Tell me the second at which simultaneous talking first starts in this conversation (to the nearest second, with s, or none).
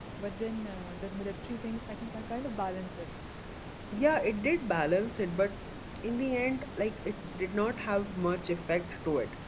none